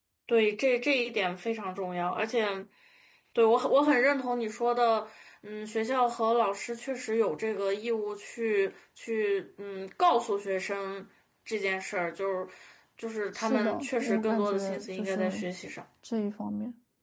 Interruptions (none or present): present